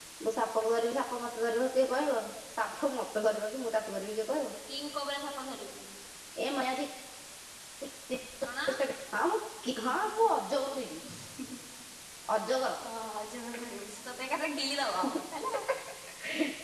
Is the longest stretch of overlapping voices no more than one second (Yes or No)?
Yes